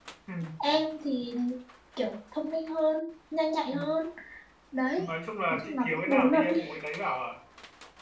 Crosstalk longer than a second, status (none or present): present